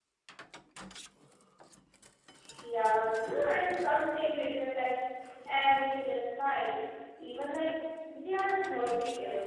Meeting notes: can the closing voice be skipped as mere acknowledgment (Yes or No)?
No